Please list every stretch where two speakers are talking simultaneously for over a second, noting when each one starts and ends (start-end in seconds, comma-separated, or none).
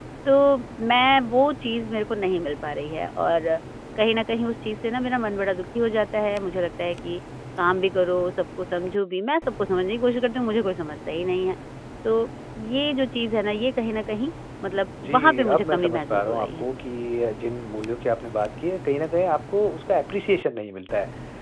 15.0-16.6